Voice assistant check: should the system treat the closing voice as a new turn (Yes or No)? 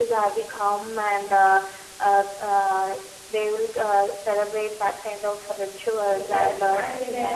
Yes